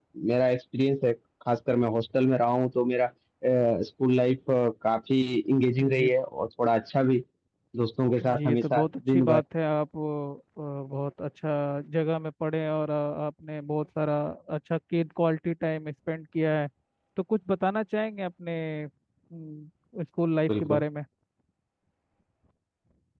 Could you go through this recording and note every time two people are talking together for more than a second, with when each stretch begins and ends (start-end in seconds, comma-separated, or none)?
8.2-9.4